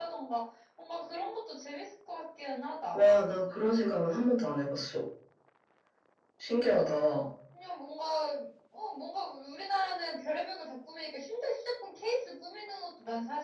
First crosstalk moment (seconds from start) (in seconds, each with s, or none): none